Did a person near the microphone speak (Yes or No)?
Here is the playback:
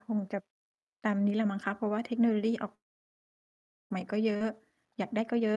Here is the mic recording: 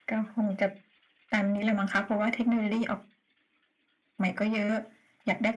No